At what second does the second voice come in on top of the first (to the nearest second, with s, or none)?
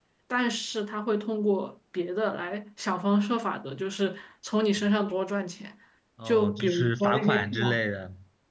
6 s